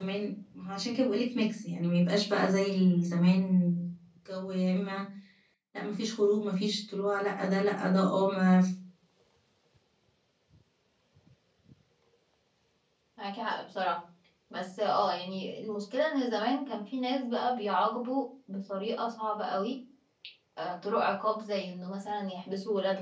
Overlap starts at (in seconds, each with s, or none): none